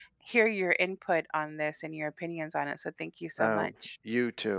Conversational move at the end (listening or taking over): taking over